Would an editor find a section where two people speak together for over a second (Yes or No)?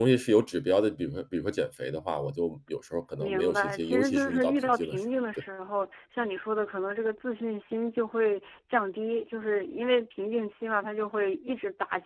Yes